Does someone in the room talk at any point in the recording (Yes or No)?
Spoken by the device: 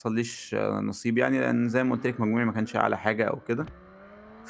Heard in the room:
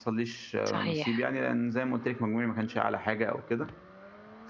Yes